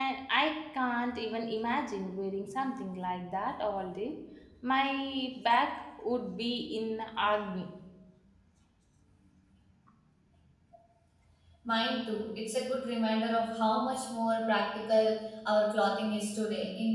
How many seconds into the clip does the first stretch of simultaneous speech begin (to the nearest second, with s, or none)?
none